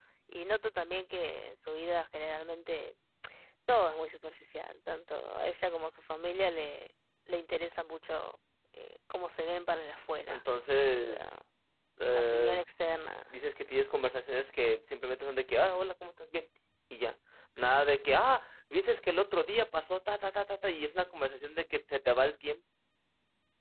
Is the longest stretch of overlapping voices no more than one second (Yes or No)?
Yes